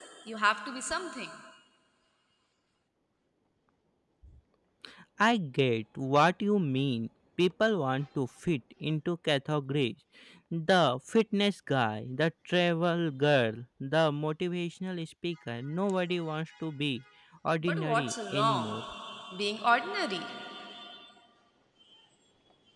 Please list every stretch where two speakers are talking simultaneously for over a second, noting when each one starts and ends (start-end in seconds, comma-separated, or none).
17.6-18.8